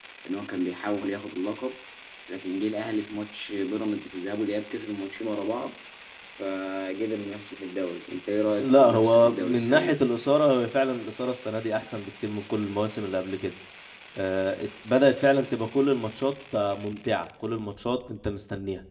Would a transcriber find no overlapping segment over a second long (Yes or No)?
No